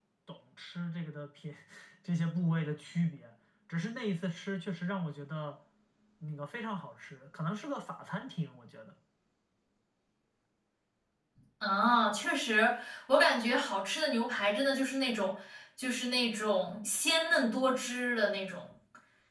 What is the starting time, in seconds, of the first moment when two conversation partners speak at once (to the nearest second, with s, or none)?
none